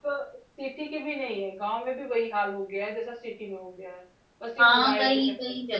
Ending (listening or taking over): taking over